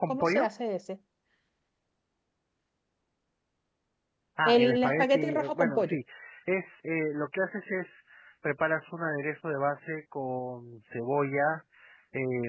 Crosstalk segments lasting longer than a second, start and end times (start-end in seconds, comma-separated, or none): 4.5-6.0